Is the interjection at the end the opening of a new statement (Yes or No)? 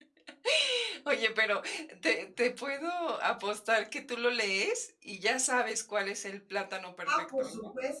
Yes